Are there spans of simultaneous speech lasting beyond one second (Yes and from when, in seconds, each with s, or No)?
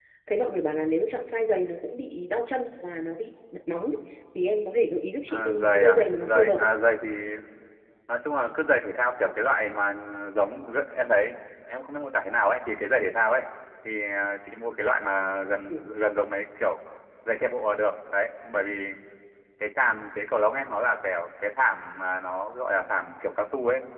Yes, from 5.3 s